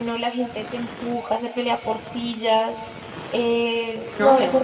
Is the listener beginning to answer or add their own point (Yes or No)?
No